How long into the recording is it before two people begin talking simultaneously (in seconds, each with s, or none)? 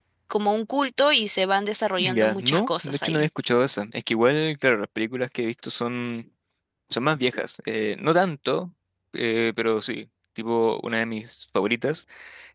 2.0 s